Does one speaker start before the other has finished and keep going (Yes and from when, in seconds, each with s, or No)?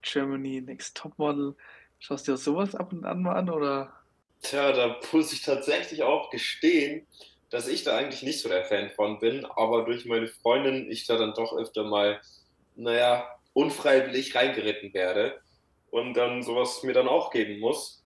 No